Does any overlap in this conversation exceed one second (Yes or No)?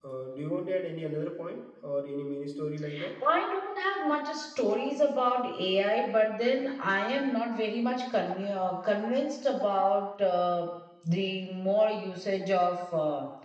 No